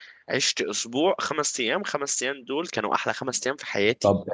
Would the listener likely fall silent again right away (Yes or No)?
No